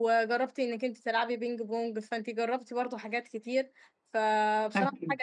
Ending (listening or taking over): listening